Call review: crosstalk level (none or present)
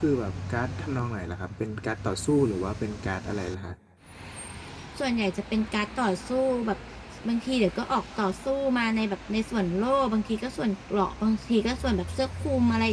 none